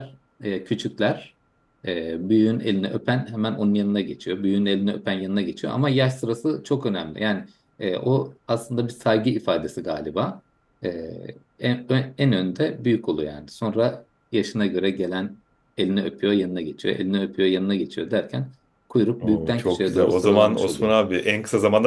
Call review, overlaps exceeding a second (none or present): present